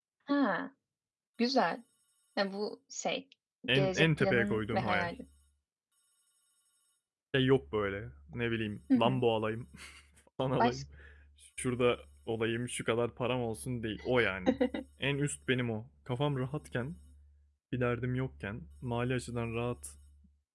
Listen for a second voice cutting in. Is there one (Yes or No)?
Yes